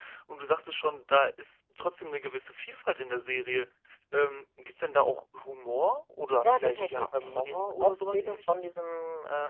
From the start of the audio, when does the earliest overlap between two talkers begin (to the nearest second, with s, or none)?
6 s